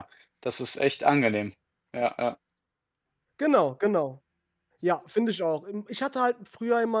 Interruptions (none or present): none